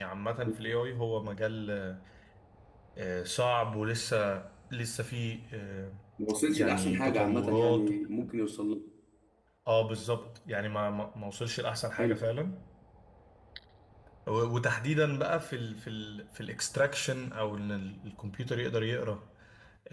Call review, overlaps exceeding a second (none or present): present